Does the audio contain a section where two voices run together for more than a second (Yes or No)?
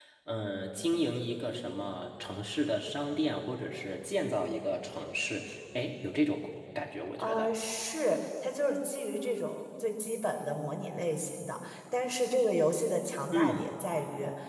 No